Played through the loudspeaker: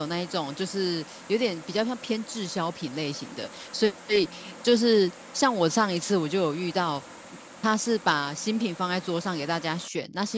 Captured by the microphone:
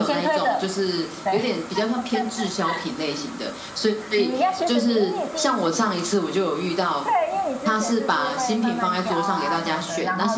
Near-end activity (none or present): present